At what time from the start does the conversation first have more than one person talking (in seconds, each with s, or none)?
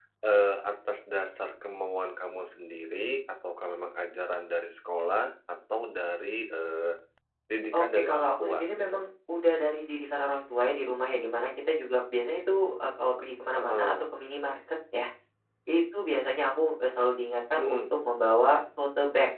7.7 s